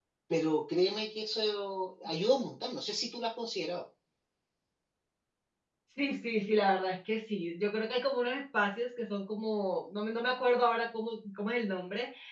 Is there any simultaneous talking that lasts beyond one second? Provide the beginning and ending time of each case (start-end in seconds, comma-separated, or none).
none